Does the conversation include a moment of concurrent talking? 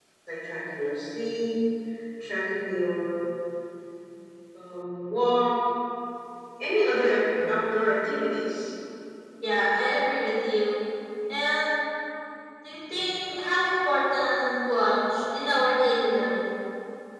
No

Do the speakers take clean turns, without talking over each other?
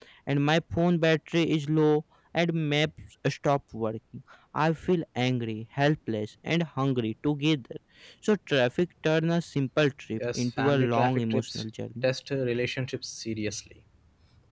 No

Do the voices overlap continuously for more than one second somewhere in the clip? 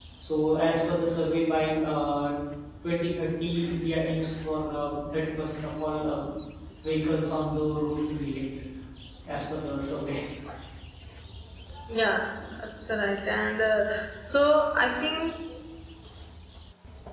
No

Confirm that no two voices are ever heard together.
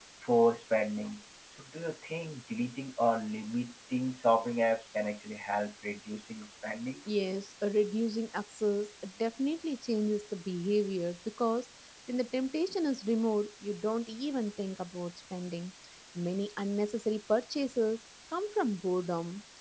Yes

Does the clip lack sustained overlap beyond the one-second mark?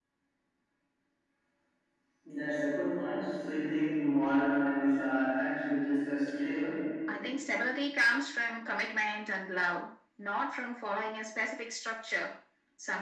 Yes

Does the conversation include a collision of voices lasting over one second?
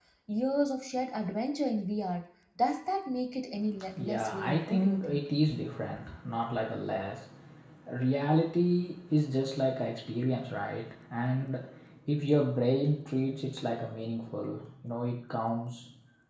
Yes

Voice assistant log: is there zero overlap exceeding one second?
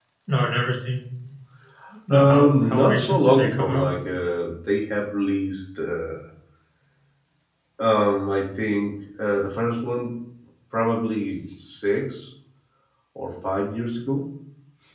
No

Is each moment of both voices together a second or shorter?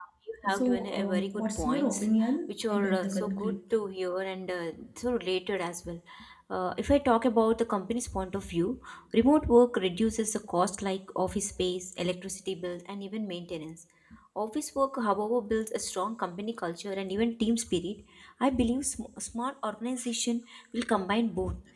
No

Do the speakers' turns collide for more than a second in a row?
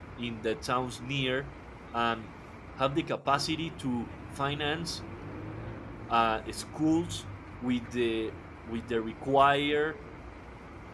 No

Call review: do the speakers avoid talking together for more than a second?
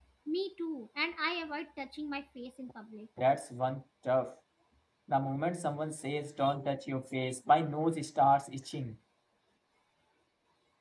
Yes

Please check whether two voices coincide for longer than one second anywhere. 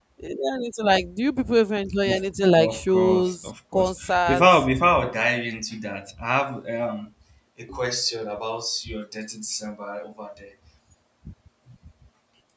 Yes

